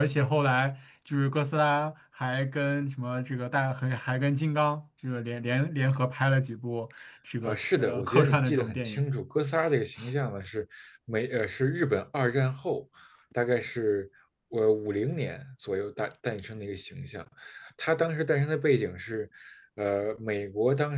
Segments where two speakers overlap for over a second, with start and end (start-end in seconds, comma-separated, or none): 7.4-9.1